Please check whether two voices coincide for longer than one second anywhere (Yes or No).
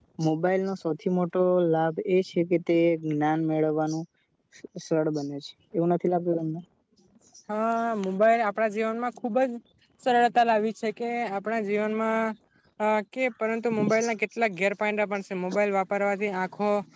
No